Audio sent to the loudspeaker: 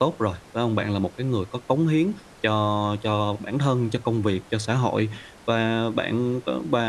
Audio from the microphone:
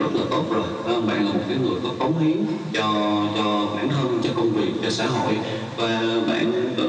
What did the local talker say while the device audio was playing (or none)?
none